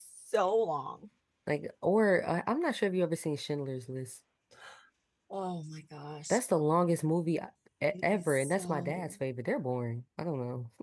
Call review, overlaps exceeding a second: present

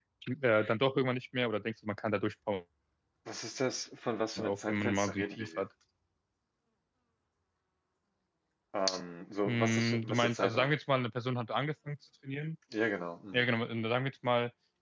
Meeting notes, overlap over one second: present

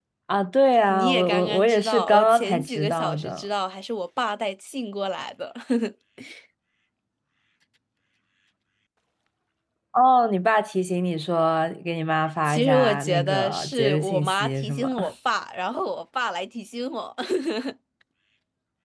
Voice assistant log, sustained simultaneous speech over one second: present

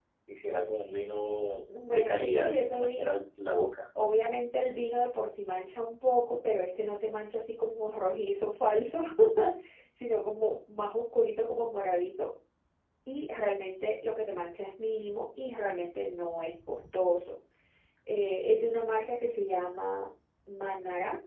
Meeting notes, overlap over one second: present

